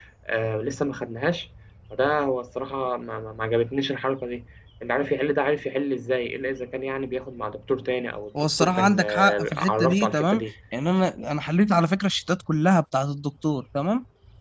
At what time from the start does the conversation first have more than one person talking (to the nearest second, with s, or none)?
8 s